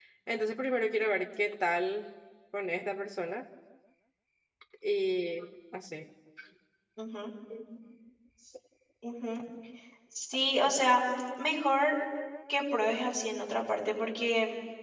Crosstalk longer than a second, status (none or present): none